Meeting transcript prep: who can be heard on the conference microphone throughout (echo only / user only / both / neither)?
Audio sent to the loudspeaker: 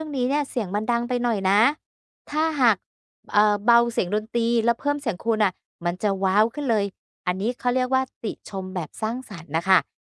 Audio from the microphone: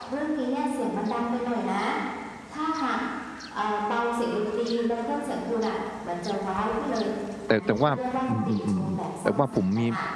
both